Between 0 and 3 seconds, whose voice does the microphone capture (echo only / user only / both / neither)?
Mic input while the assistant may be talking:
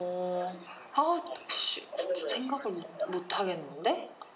both